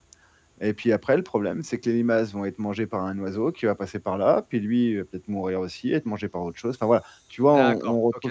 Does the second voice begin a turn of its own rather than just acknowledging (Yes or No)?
Yes